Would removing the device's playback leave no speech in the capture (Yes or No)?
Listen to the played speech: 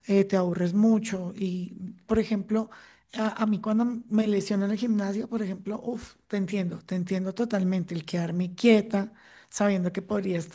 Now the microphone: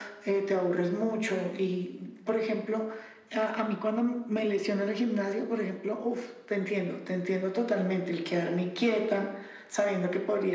Yes